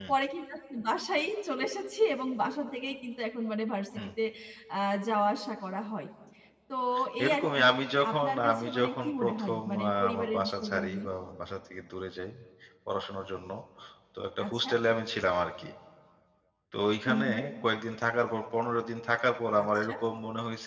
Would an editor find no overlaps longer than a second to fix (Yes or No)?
No